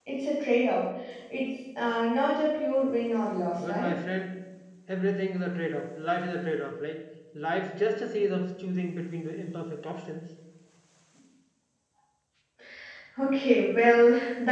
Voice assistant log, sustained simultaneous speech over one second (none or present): none